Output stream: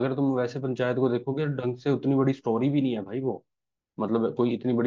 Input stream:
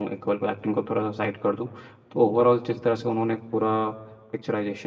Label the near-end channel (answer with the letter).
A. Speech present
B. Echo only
A